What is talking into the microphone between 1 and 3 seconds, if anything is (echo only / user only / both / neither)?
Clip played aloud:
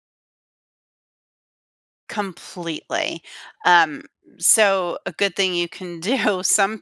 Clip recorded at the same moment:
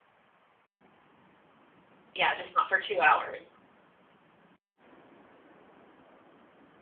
user only